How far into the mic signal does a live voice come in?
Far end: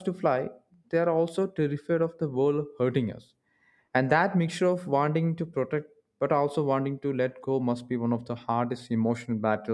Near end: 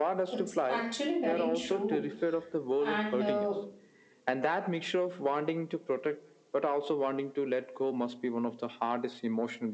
0 s

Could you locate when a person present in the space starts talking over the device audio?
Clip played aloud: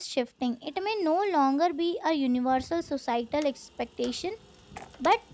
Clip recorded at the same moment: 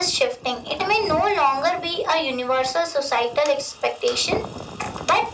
none

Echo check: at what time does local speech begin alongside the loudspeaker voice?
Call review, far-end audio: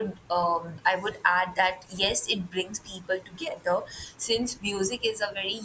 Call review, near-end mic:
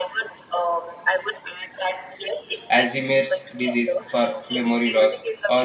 3 s

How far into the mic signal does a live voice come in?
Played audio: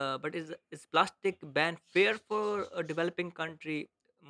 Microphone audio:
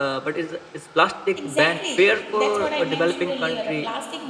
1 s

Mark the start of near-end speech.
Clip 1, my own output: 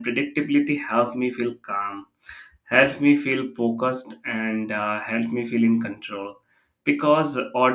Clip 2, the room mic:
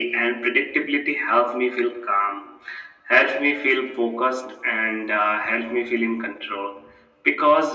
none

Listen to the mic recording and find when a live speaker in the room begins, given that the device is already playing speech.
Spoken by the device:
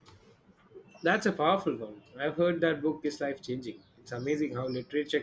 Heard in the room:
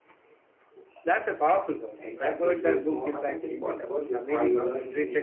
2 s

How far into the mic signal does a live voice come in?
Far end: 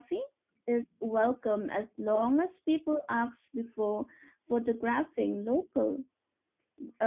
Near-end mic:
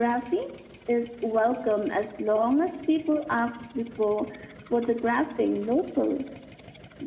none

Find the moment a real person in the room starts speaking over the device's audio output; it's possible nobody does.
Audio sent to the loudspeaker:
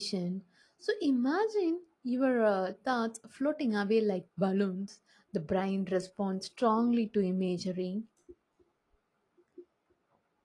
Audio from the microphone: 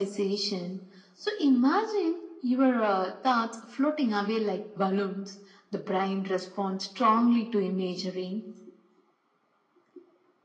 none

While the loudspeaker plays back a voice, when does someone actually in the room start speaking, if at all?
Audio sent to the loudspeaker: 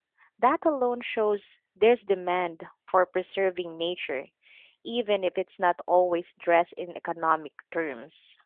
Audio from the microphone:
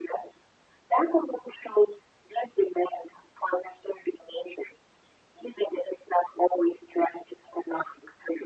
none

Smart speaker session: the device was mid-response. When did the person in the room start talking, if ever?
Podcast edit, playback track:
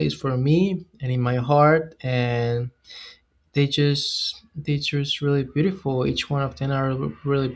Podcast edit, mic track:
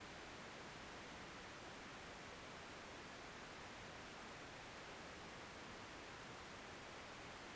none

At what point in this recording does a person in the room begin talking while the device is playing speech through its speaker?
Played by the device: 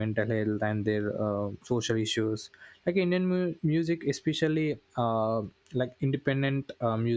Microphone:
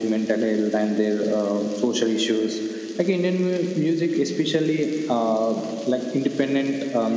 none

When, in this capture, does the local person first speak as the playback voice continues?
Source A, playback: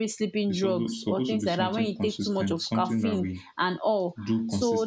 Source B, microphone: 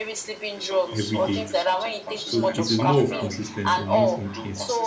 1 s

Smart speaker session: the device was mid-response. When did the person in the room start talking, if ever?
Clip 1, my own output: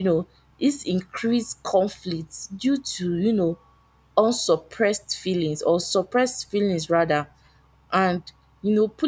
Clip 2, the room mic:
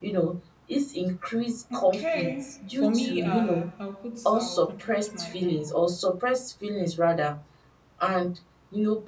2 s

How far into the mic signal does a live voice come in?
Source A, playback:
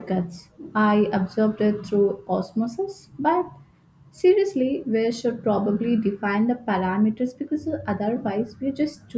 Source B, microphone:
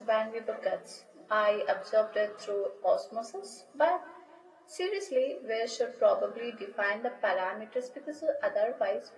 none

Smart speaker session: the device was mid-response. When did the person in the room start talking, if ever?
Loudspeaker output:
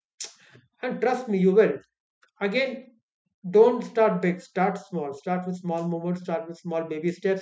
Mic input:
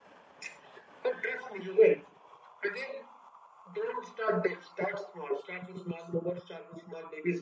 none

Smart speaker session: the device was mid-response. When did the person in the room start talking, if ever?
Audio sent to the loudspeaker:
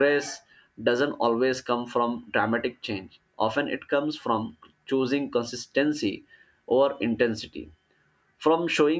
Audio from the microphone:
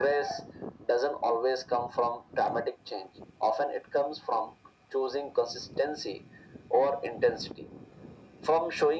none

